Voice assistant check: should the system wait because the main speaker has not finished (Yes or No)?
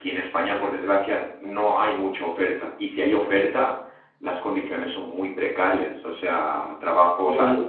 Yes